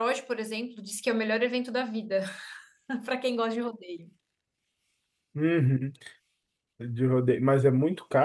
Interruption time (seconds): none

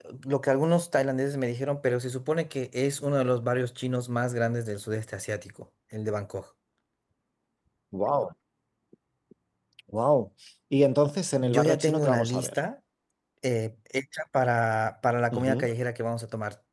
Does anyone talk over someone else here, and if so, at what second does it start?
11.4 s

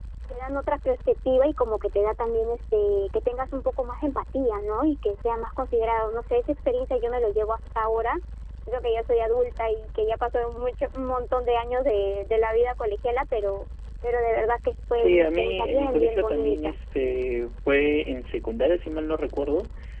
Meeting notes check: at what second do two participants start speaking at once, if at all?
14.9 s

